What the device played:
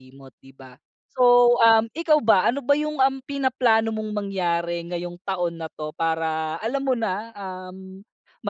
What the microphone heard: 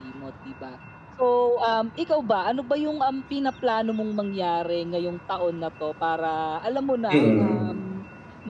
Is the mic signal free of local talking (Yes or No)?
No